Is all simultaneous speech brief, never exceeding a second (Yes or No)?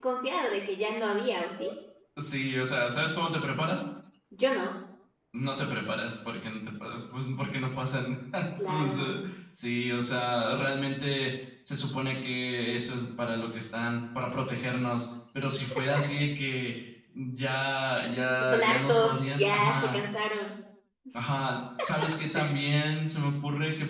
No